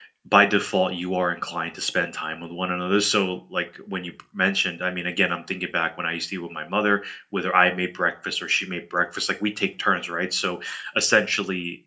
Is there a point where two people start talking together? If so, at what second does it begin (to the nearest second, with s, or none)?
none